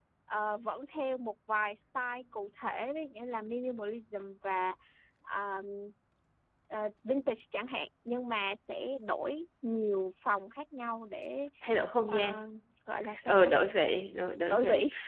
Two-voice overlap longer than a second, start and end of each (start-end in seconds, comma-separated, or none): none